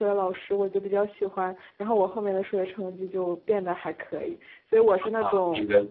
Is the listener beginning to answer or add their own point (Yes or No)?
Yes